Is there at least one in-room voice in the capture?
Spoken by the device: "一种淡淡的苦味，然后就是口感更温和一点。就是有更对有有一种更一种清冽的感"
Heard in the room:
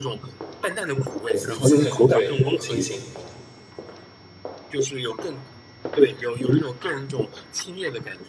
Yes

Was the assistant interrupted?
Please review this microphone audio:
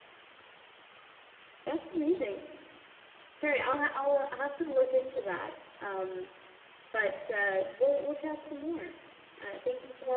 Yes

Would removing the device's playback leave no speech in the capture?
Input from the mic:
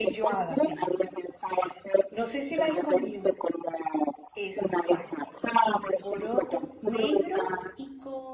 No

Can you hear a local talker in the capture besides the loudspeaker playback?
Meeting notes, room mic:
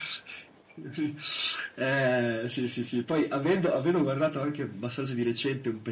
No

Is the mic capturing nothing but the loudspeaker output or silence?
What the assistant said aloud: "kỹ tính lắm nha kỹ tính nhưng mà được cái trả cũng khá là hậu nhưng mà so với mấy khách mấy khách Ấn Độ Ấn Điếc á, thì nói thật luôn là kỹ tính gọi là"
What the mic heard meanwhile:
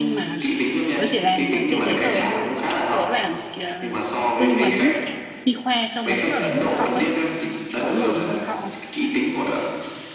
No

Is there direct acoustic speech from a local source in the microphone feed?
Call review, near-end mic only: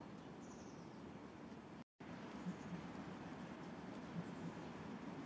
No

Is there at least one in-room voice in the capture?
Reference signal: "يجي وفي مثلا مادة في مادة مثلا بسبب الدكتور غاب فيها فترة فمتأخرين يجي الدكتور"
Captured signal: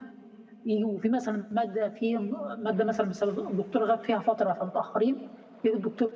No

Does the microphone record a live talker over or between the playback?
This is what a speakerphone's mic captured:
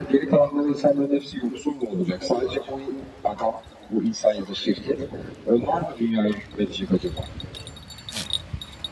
No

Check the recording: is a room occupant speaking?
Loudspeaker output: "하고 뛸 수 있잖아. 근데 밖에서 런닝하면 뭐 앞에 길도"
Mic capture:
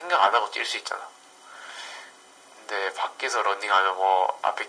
No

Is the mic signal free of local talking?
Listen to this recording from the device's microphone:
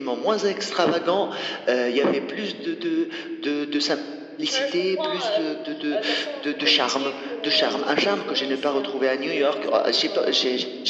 Yes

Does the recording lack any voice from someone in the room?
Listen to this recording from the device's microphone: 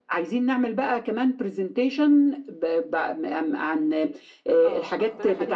No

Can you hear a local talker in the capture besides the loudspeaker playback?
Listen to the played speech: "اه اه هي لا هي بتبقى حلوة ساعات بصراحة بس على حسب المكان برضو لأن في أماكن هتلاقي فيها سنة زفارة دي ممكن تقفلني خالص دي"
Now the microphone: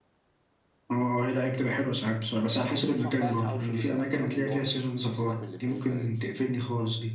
Yes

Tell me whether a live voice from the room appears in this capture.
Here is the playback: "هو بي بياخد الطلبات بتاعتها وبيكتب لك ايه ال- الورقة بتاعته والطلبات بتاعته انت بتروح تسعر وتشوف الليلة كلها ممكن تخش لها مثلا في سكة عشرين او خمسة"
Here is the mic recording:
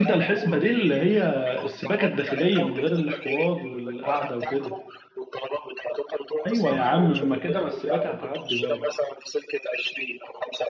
Yes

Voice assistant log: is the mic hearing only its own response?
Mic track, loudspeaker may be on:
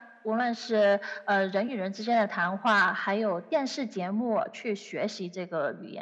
Yes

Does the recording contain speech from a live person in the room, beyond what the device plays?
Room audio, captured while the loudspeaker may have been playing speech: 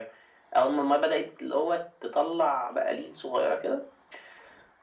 No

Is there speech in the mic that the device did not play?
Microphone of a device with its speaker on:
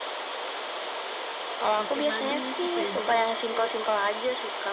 Yes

